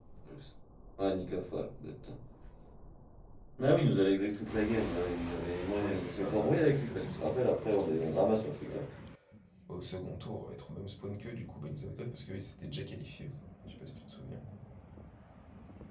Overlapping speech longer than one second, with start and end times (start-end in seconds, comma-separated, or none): 5.8-8.8